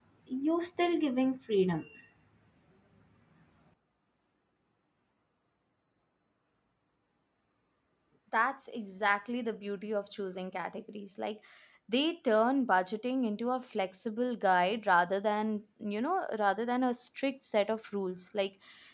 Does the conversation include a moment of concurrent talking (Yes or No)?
No